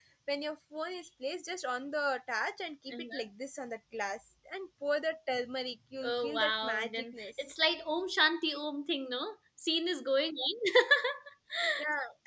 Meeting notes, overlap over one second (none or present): present